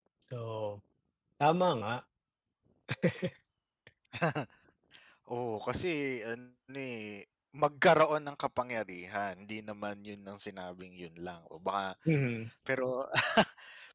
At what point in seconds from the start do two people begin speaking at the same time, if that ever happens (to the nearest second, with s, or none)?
none